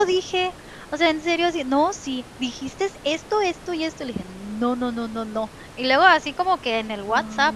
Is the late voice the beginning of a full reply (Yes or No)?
No